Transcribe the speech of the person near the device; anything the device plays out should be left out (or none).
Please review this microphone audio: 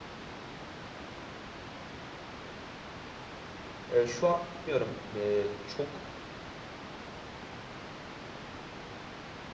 Ee, şu an bilmiyorum ee, çok